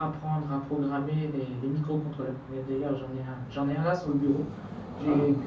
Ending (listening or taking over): listening